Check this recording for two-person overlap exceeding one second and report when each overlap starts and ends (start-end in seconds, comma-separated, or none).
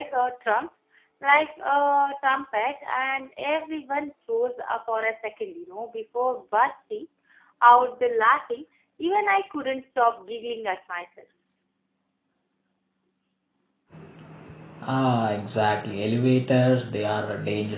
none